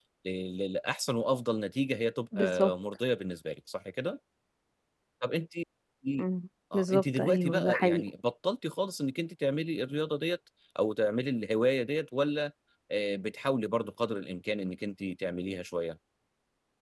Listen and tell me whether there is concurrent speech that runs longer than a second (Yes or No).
Yes